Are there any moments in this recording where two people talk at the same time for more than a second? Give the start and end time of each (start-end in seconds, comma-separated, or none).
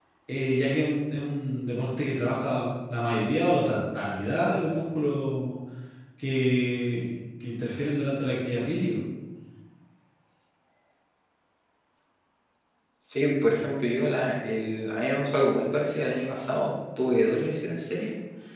none